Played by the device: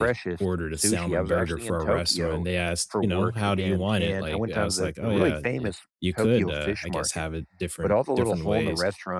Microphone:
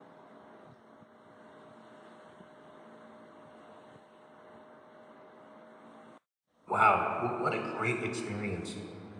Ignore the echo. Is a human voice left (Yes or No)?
Yes